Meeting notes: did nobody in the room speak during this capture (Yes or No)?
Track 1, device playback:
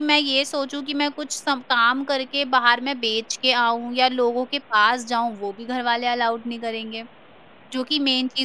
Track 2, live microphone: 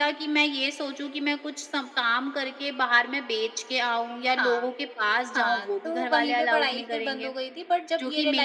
No